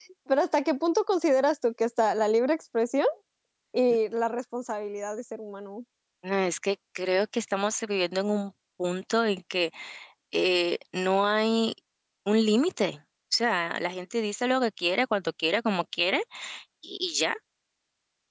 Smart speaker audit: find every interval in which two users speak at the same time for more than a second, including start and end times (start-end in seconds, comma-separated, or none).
none